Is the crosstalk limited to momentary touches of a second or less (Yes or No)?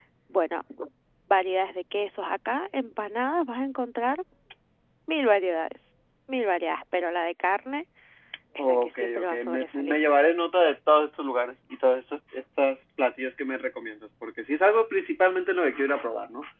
No